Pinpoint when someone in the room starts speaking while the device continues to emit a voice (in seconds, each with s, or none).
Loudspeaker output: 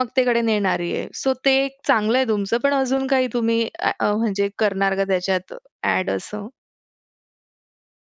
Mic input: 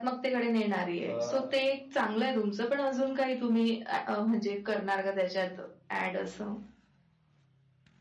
1.0 s